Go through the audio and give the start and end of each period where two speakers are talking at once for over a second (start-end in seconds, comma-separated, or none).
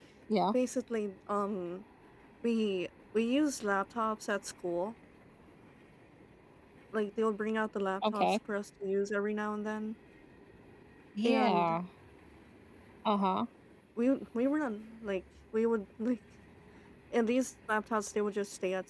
none